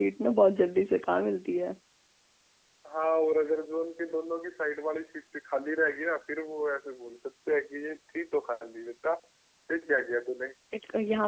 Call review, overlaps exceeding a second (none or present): none